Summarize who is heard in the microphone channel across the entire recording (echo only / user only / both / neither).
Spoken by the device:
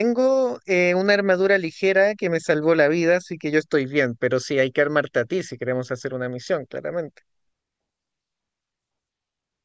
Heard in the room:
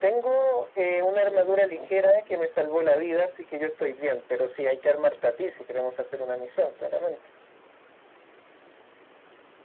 both